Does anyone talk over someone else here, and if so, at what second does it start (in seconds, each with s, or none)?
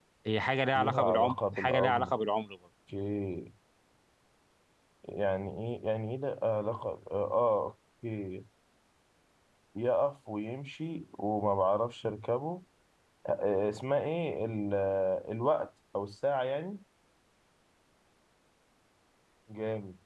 0.8 s